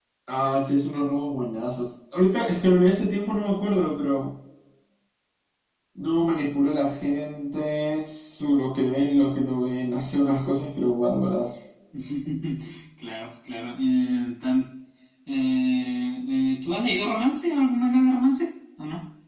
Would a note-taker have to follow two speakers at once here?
No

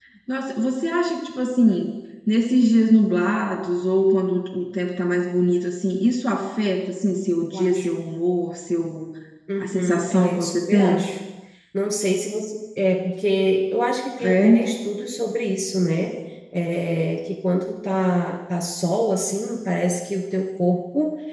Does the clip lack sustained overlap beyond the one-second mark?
No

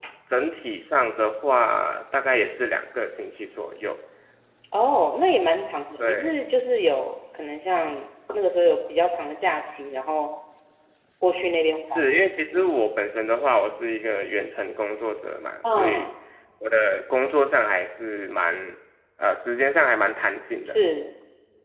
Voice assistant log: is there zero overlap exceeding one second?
Yes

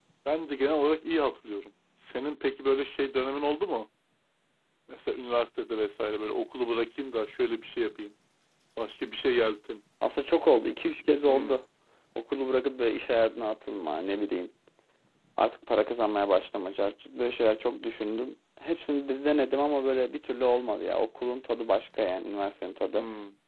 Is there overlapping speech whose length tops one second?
No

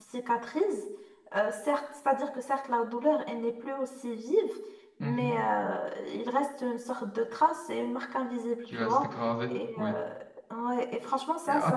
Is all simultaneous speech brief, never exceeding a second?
Yes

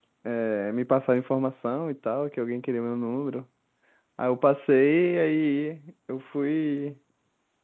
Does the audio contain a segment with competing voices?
No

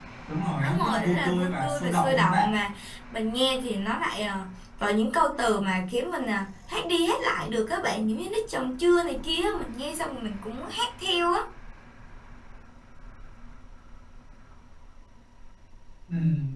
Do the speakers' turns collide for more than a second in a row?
Yes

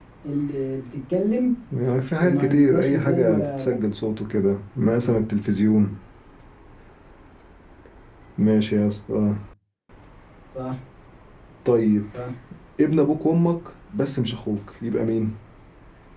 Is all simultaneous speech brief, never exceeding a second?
No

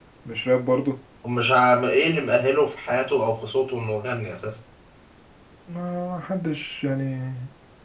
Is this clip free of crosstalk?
Yes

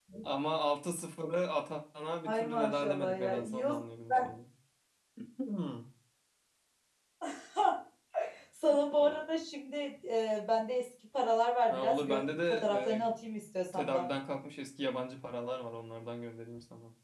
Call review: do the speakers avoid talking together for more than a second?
No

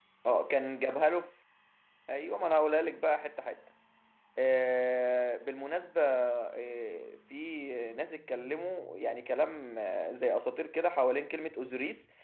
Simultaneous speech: No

